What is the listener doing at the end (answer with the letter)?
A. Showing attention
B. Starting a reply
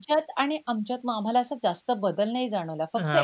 B